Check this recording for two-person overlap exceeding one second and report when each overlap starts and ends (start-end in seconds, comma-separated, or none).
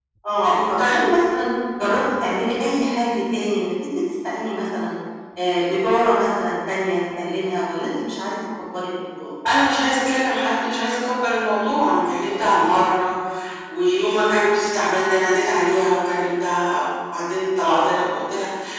none